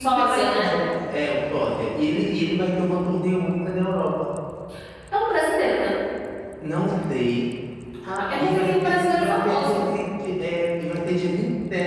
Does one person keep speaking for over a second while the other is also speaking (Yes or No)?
Yes